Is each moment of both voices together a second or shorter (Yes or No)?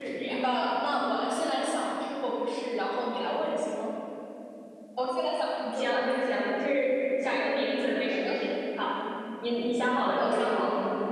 Yes